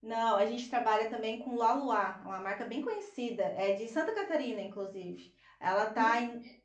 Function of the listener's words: listening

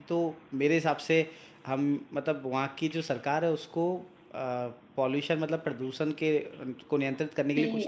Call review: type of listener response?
taking over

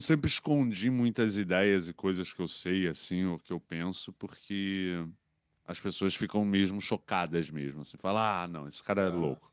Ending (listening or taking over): listening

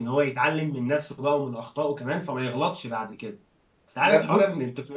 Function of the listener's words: listening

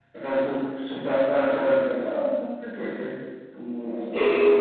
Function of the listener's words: listening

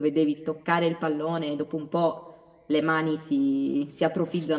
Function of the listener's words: taking over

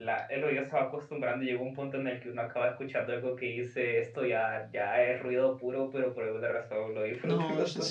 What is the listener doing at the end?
taking over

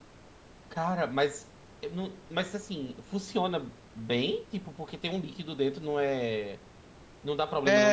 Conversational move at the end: taking over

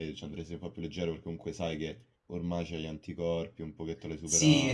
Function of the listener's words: taking over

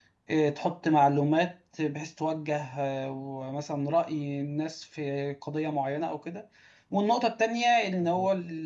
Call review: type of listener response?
listening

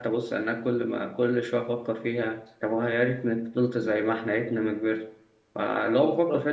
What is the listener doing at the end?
listening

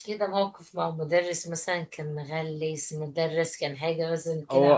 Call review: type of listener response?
taking over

